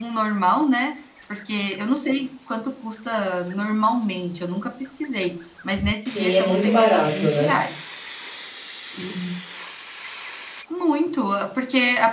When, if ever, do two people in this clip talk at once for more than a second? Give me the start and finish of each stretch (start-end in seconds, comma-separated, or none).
6.1-7.5